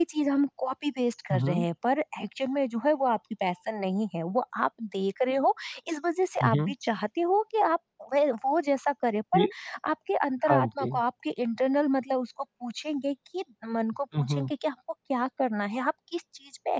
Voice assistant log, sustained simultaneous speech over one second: none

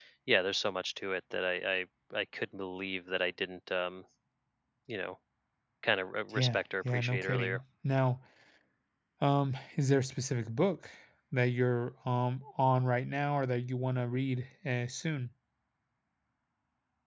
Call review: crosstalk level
present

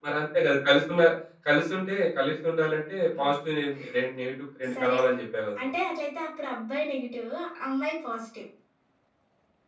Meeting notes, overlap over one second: none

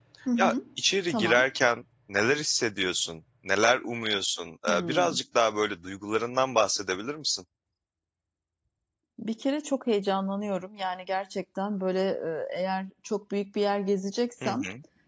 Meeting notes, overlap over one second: none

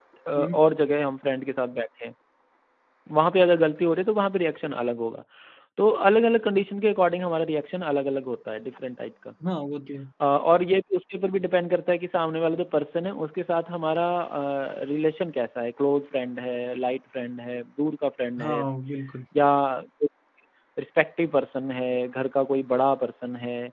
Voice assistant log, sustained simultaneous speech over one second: none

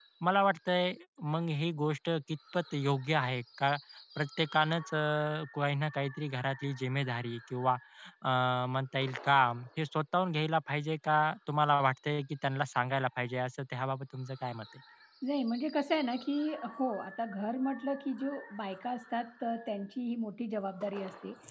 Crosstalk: none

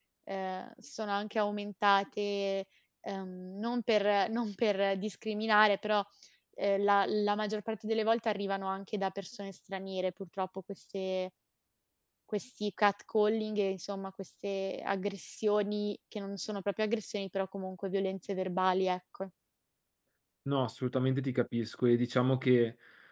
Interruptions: none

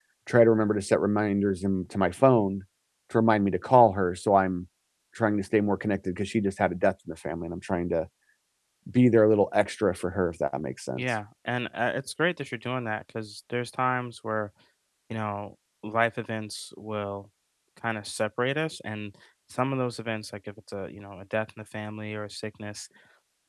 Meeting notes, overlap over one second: none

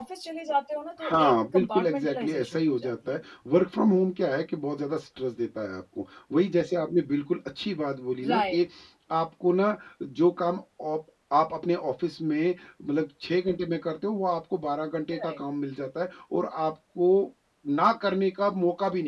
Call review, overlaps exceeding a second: present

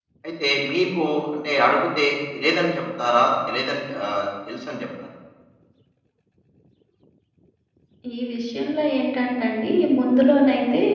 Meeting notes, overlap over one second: none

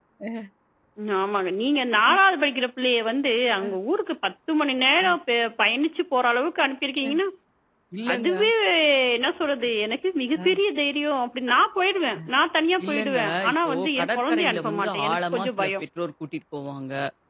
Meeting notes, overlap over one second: present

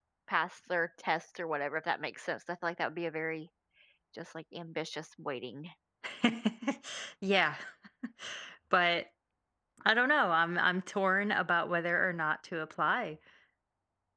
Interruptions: none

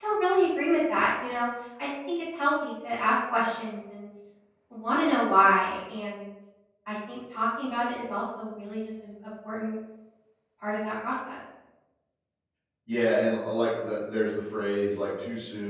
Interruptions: none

